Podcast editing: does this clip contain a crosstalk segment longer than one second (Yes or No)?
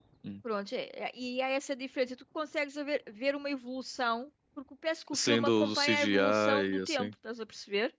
Yes